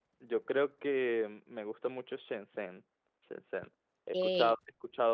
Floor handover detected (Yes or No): No